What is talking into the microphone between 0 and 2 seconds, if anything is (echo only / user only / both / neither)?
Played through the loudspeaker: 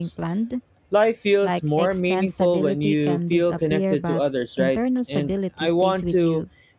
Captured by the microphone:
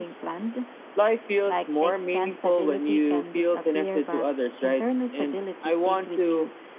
echo only